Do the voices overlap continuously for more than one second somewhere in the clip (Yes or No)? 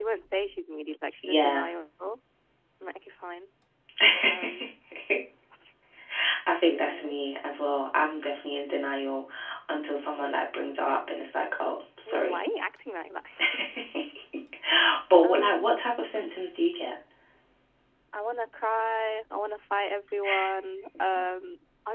No